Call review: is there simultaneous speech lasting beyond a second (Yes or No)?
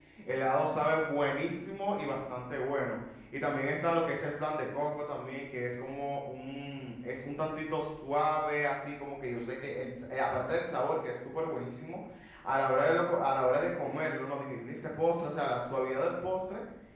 No